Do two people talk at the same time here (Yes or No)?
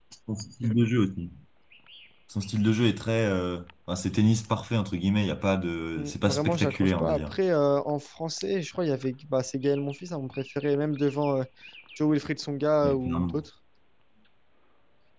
Yes